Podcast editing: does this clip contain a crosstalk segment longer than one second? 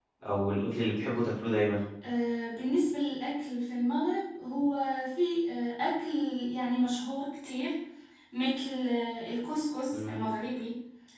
No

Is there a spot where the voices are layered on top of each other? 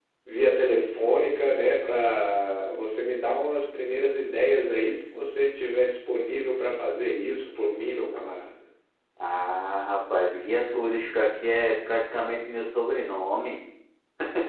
No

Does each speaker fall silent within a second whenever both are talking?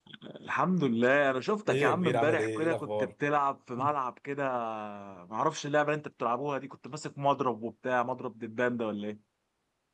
No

